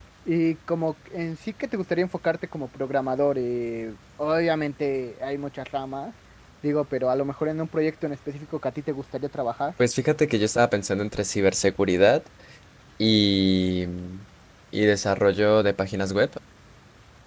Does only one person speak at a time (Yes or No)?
Yes